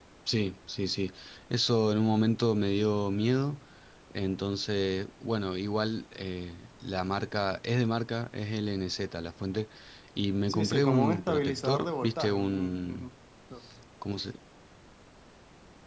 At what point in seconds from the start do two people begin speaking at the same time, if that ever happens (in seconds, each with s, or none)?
10.5 s